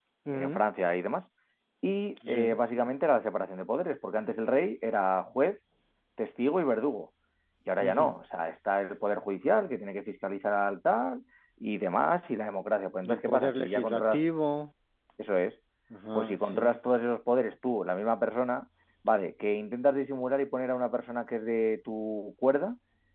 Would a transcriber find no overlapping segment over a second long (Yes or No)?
No